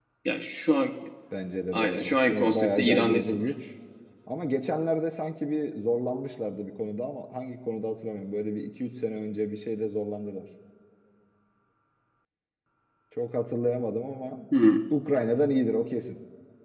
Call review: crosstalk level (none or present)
present